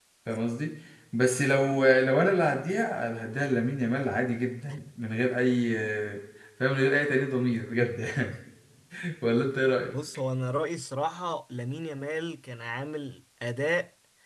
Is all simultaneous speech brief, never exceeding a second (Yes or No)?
Yes